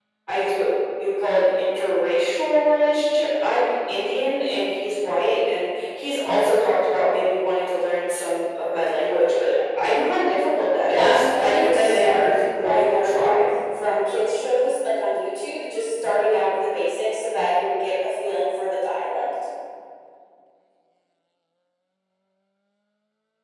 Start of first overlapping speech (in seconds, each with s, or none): 10.9 s